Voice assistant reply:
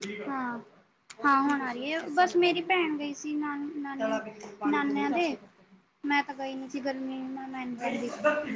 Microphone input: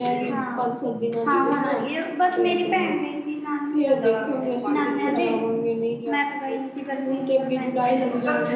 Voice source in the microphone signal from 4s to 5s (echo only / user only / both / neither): both